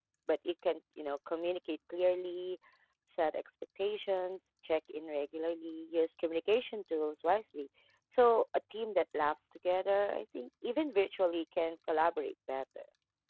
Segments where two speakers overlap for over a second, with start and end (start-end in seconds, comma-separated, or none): none